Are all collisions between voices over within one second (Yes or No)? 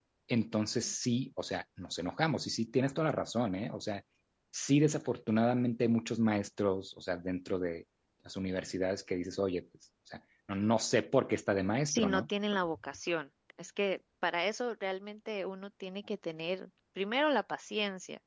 Yes